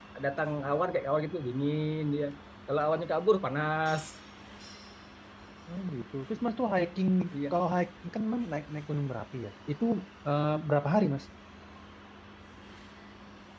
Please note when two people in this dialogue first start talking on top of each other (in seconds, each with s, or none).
none